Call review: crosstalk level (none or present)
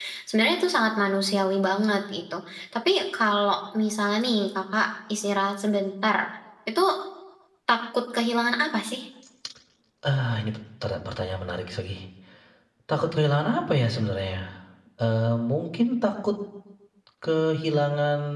none